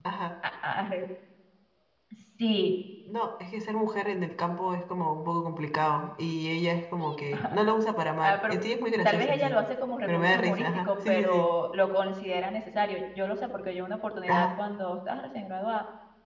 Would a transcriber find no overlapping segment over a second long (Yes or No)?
No